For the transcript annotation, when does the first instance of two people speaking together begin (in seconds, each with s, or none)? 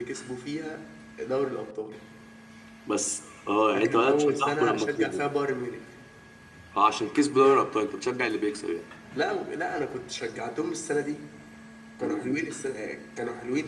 3.7 s